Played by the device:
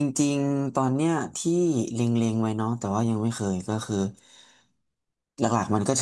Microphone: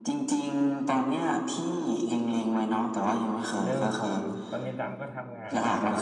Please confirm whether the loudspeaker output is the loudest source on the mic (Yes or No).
Yes